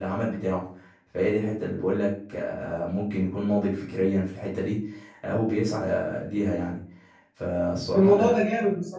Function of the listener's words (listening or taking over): taking over